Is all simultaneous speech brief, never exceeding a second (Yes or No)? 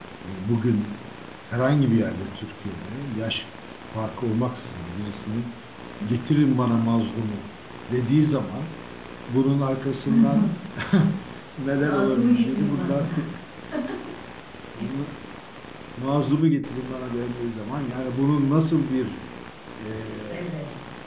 No